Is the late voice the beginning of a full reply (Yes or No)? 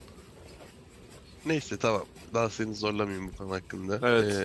Yes